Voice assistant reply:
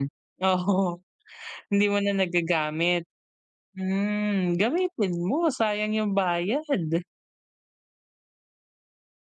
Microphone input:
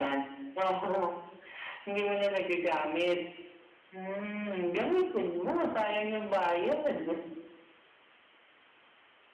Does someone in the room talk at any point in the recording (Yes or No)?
No